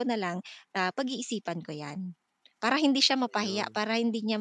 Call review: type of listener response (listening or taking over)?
listening